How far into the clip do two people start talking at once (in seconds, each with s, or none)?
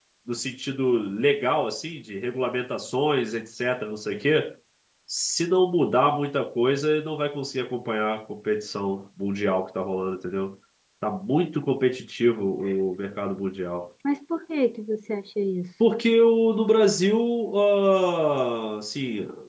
none